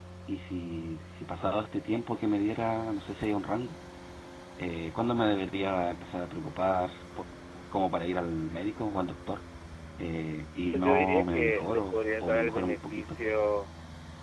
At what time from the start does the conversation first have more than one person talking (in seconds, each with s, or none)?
10.7 s